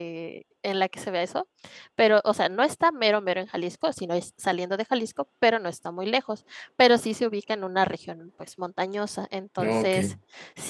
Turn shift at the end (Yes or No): No